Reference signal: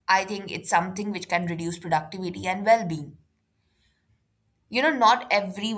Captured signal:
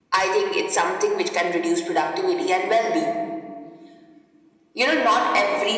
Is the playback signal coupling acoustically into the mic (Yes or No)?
Yes